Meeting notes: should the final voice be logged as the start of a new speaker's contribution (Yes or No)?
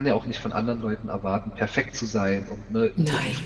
No